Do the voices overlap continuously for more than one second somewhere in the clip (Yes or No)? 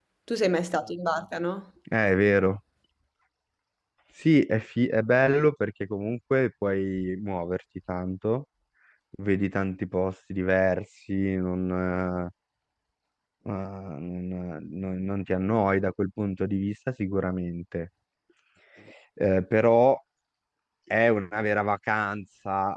No